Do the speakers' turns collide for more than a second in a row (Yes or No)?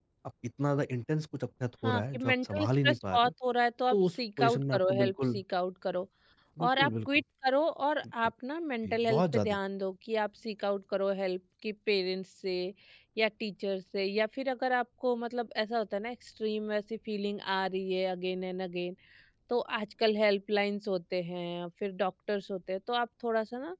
Yes